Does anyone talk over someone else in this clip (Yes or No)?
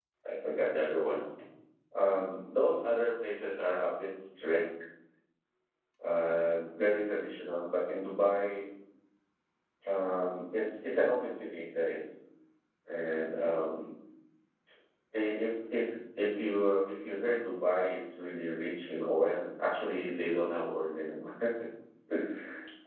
No